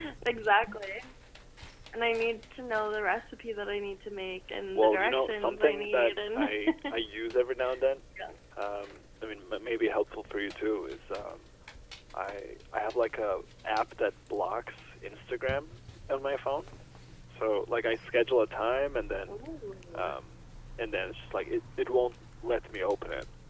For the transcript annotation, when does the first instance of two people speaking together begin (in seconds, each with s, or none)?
4.8 s